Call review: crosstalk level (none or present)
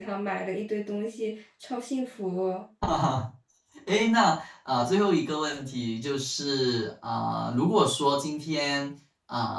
none